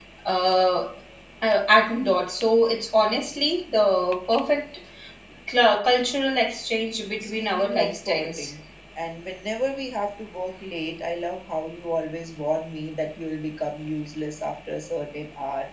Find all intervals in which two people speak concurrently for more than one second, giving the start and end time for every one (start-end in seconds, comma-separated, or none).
7.2-8.5